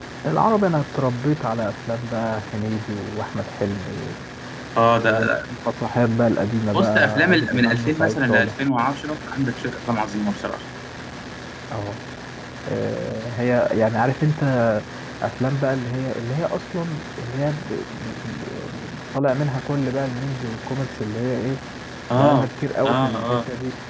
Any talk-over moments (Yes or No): Yes